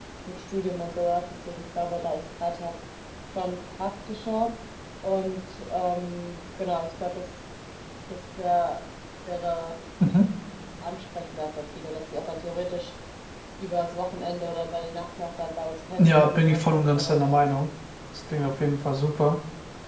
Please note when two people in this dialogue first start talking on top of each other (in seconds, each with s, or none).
16.0 s